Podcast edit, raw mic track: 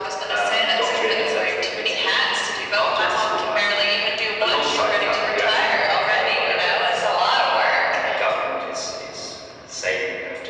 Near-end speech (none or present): none